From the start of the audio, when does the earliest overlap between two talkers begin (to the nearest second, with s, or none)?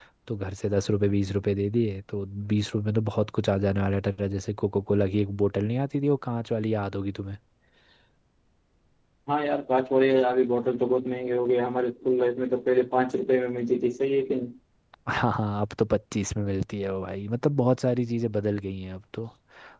none